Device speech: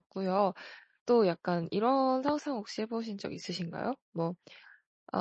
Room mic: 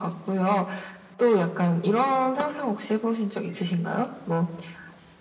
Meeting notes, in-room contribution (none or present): none